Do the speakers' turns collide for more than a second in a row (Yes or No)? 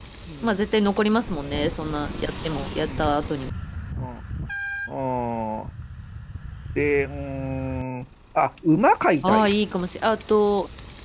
No